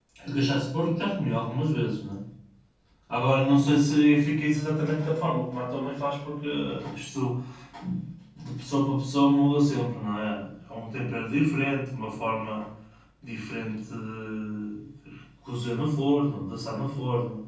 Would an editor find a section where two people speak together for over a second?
No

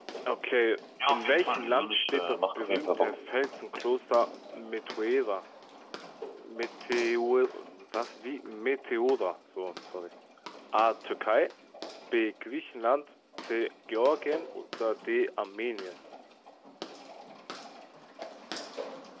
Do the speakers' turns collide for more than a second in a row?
Yes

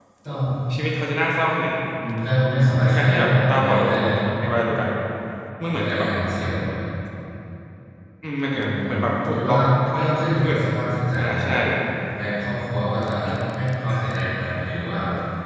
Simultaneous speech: Yes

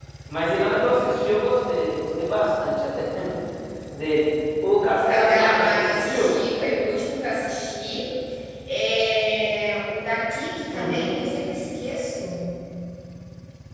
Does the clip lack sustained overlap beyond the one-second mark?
No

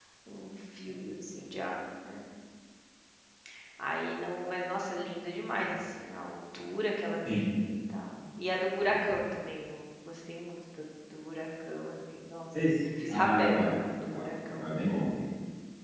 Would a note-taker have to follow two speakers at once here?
Yes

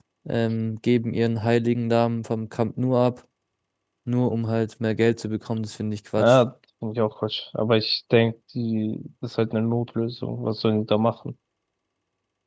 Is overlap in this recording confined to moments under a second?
Yes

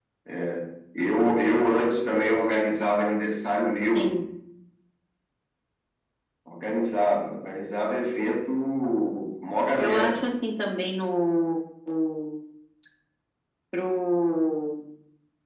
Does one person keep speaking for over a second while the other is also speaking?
No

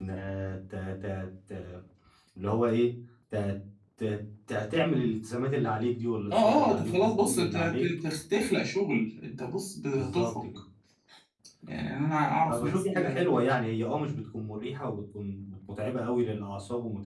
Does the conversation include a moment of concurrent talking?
Yes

